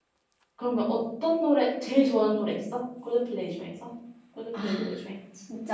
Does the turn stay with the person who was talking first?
No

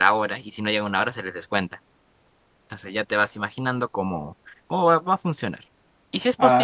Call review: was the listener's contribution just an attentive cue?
Yes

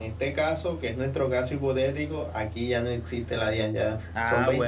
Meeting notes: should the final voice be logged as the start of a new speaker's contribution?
Yes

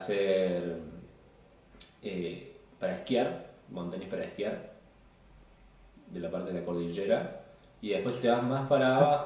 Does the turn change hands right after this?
No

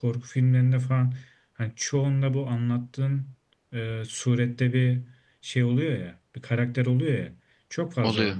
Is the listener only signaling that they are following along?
Yes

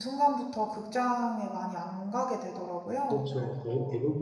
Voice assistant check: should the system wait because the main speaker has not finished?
No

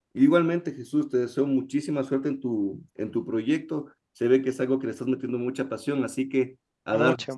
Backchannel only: Yes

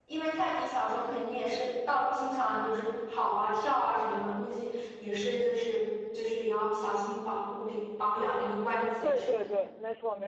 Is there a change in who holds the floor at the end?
Yes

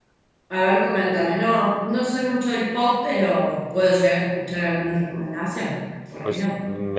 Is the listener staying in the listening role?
No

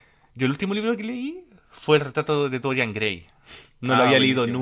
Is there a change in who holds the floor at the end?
No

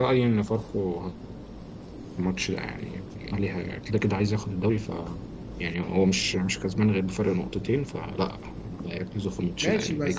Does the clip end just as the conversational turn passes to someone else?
Yes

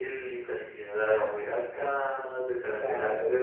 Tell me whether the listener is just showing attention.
Yes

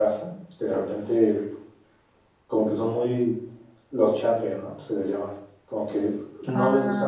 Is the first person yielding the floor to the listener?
No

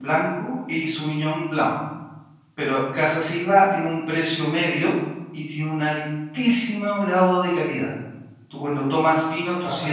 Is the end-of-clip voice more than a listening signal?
No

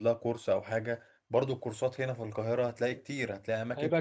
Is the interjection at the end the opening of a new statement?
No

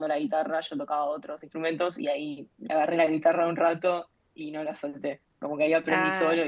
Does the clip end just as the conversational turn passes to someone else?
No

